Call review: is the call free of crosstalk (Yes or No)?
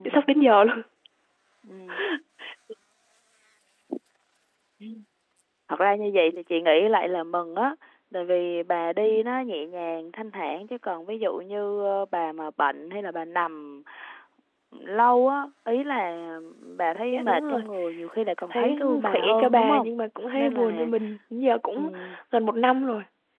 No